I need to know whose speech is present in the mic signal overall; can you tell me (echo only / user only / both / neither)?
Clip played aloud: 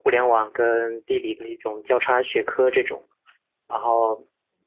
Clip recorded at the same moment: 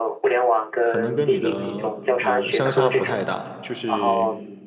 both